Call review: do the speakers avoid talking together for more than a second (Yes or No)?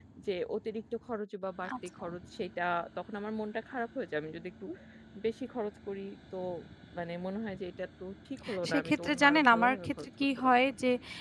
No